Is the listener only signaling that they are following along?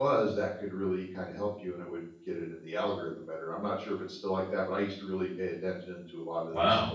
No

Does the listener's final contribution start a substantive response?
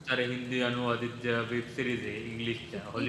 Yes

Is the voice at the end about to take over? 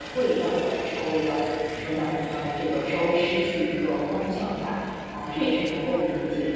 No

